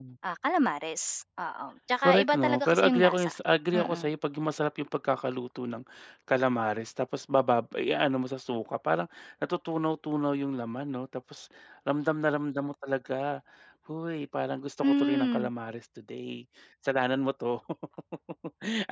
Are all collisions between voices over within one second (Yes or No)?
No